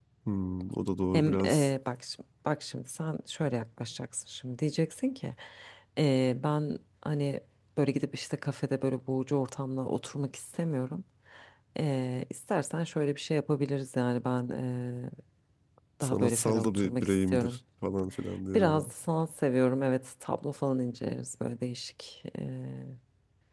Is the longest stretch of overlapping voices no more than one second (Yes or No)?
No